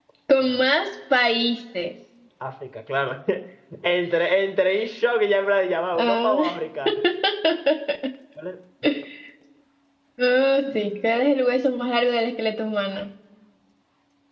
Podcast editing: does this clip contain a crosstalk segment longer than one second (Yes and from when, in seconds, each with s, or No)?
No